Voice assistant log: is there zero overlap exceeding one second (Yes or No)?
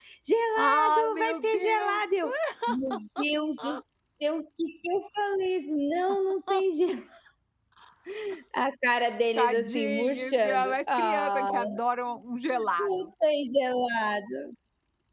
No